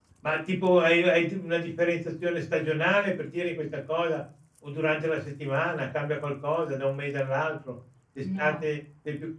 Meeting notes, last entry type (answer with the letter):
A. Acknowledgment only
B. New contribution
A